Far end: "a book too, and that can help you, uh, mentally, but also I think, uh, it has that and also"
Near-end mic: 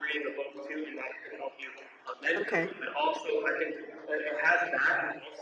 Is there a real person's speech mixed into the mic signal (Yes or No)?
Yes